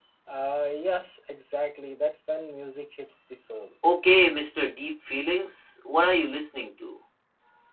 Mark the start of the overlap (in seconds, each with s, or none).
none